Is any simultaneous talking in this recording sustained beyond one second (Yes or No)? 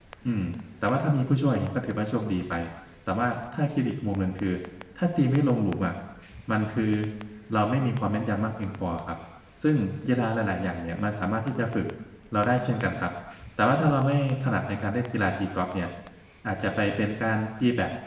No